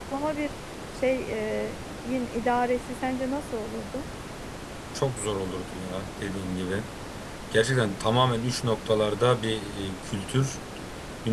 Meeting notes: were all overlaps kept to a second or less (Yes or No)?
Yes